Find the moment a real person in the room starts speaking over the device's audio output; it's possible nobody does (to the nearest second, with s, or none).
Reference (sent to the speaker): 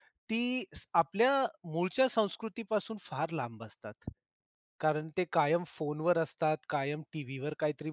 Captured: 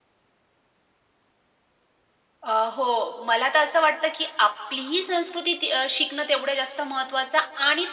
2 s